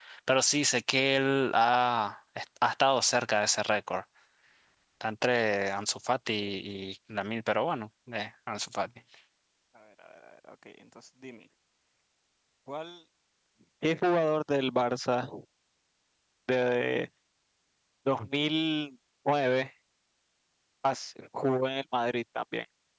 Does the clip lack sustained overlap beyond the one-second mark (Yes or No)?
Yes